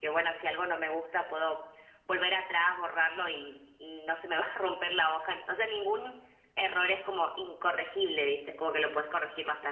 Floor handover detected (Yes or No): No